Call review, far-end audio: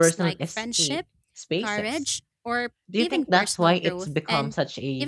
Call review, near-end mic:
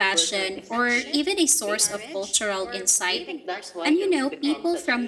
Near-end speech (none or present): present